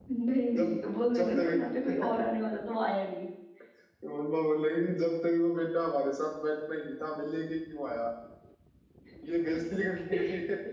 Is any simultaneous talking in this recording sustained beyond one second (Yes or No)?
No